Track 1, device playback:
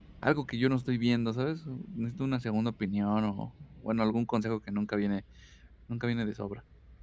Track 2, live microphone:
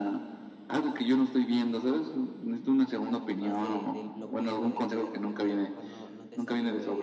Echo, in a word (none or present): present